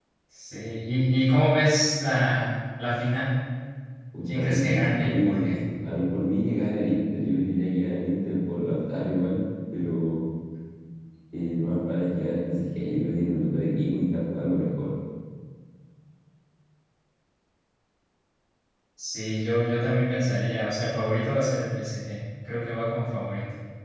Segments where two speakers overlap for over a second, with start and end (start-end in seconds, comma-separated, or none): 4.3-5.5